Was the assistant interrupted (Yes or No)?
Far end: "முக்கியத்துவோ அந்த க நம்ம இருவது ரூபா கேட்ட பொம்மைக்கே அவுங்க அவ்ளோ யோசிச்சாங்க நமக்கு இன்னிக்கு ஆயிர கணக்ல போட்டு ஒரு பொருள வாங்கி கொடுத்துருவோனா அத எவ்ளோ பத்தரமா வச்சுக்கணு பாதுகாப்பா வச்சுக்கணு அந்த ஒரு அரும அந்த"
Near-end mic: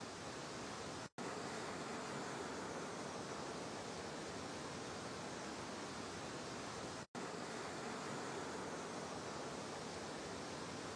No